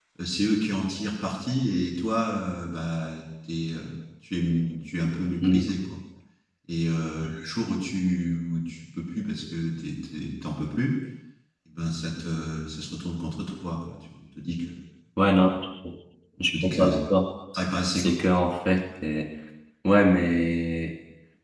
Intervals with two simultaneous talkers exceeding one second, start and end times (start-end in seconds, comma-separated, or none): none